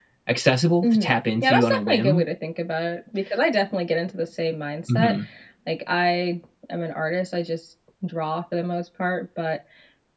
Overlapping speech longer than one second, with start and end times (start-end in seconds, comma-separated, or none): 0.8-2.2